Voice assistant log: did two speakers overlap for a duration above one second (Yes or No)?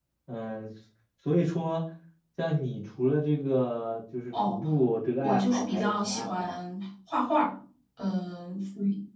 Yes